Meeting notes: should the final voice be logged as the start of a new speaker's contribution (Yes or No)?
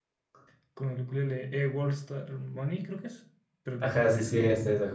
Yes